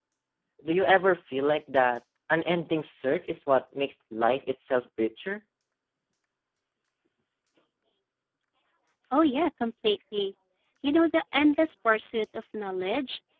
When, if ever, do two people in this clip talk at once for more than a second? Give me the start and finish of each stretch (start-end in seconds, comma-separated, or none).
none